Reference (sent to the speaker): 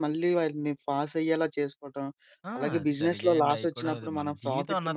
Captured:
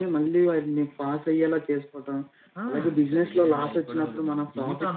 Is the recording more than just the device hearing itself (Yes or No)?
No